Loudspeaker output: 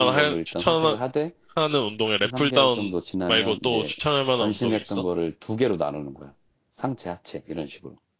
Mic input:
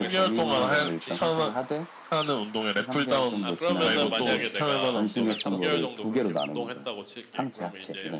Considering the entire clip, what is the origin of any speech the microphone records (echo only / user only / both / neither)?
both